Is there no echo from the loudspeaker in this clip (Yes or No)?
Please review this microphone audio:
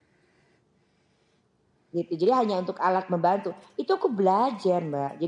Yes